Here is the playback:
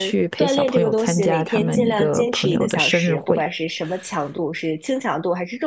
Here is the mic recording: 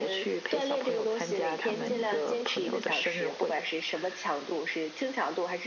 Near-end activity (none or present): none